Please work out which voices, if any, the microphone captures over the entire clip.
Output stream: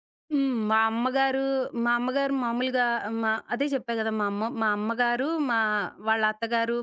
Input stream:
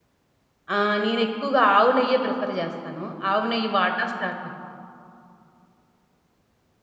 user only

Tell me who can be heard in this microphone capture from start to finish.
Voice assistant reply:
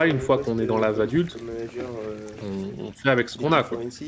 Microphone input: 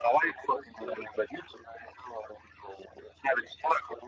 echo only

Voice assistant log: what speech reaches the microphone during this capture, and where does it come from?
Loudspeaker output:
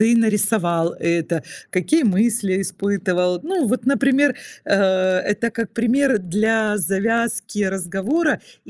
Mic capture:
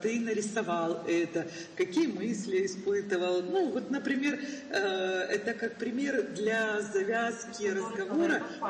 both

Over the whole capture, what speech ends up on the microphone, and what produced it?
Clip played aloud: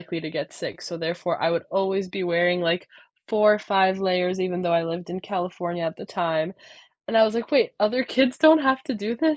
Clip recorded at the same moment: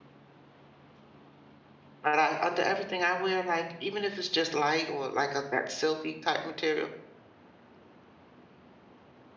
user only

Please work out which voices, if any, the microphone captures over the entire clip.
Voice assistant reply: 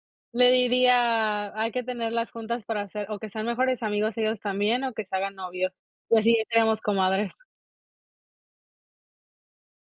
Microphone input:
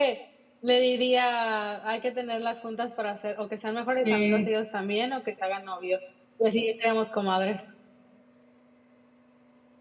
both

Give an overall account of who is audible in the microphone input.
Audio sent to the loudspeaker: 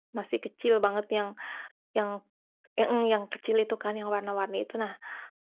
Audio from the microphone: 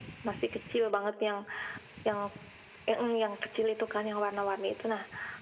echo only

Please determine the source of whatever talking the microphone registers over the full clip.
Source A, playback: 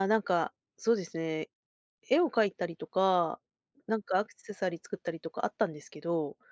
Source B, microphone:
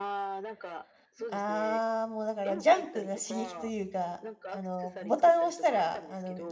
both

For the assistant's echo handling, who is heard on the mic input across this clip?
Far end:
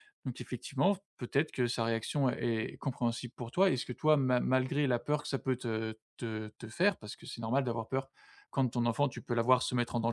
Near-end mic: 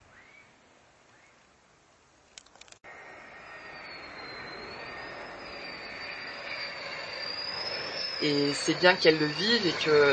user only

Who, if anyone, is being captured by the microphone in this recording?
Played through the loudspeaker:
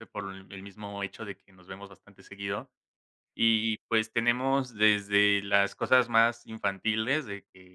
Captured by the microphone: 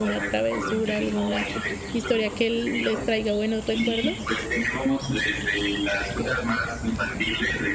both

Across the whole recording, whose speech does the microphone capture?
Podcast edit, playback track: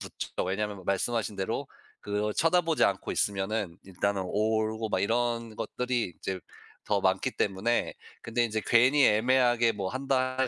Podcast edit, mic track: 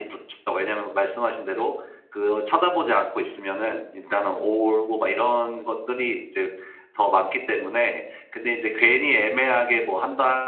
echo only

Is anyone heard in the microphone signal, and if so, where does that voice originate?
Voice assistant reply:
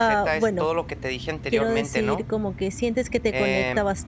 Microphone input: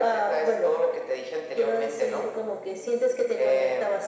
echo only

